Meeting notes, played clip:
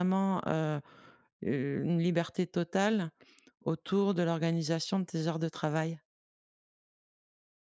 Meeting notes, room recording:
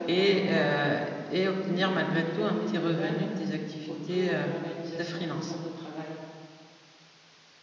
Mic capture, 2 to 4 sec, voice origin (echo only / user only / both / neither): both